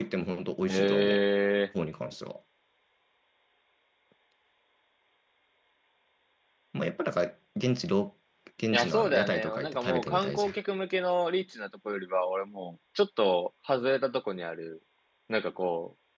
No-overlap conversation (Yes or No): No